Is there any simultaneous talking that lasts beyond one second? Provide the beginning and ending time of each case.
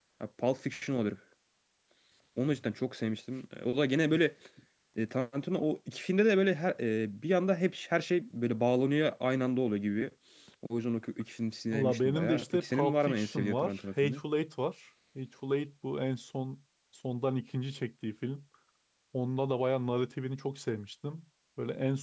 11.7-14.2

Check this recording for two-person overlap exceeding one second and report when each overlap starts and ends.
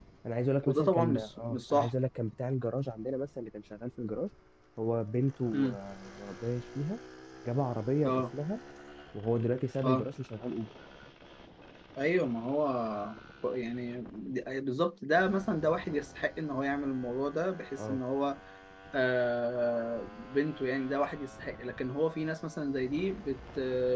0.7-1.9

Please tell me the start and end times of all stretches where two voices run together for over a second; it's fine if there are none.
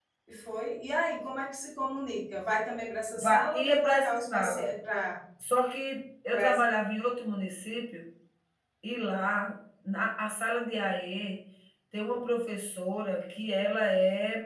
3.2-4.7

